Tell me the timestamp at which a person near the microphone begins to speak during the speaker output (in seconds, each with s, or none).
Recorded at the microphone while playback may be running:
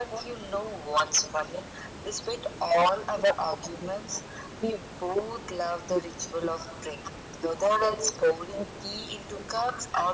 none